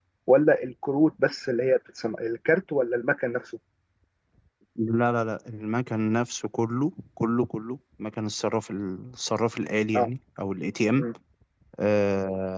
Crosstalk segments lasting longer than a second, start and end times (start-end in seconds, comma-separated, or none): none